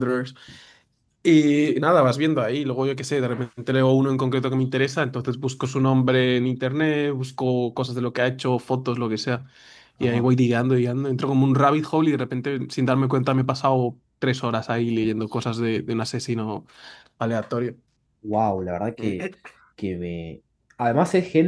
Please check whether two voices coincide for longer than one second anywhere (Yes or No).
No